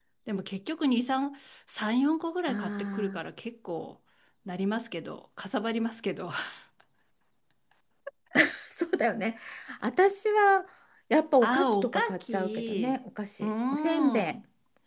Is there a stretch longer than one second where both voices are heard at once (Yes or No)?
Yes